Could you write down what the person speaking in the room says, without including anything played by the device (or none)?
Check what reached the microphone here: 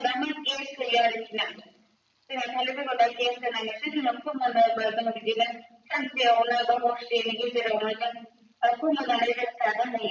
none